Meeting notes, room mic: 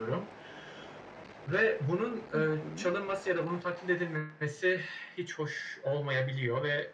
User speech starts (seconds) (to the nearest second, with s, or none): 2 s